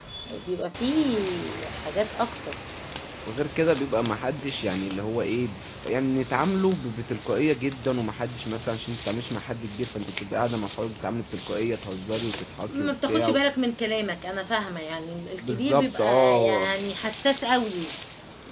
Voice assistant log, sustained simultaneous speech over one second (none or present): present